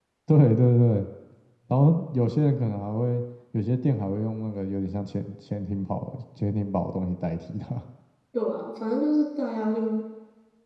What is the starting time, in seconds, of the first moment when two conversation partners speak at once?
none

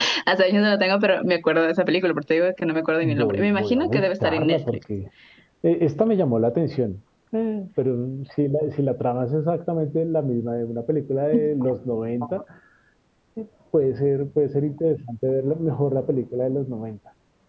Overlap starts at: 3.0 s

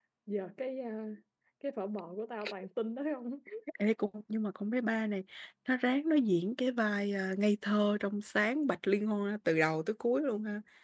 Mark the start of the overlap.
none

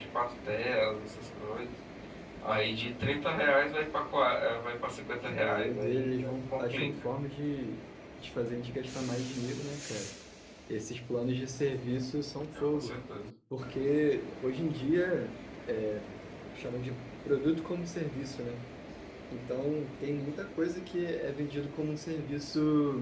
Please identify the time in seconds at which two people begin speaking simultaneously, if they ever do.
5.3 s

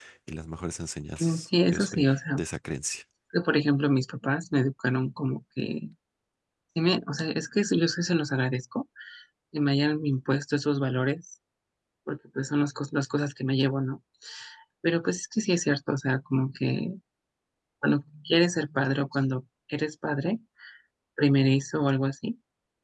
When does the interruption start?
1.2 s

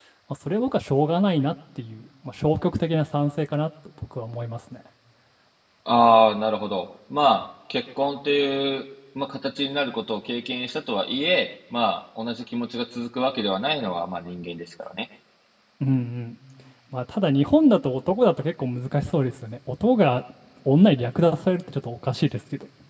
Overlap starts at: none

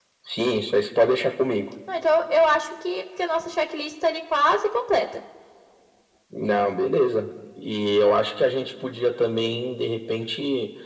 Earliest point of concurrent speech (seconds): none

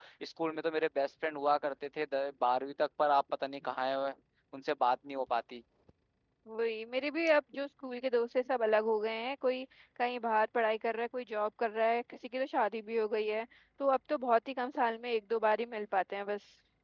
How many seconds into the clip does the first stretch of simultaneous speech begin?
none

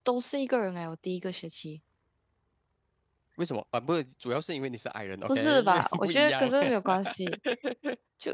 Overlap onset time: 5.3 s

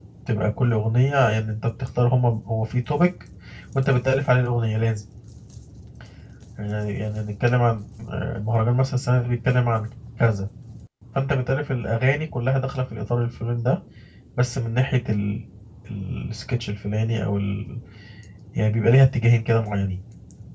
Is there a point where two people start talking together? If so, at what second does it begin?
none

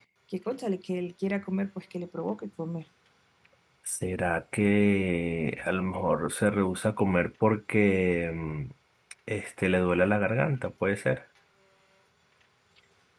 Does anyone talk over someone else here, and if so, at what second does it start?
none

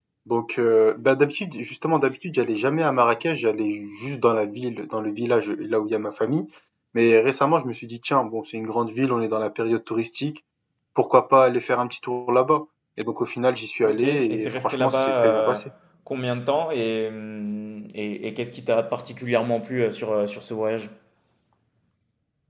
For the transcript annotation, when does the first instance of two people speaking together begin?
13.8 s

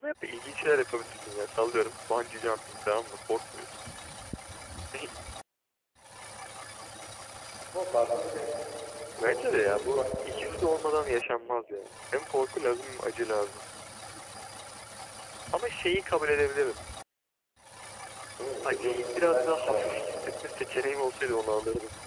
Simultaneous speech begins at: 9.2 s

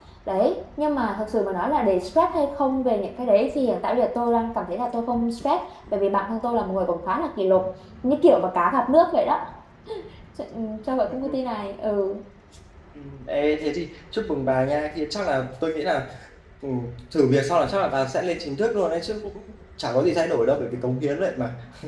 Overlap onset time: none

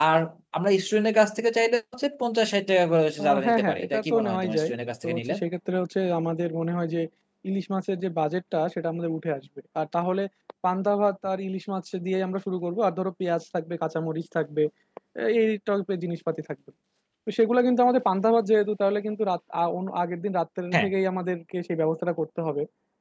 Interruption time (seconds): 3.2 s

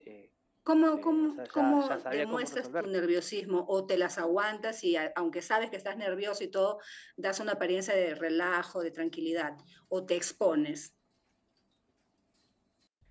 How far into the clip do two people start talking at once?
0.9 s

